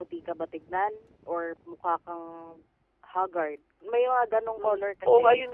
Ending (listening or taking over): taking over